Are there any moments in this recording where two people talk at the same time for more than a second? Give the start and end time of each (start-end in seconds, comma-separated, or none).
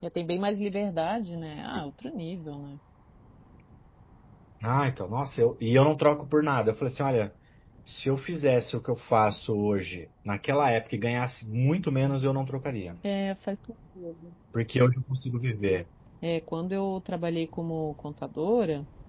none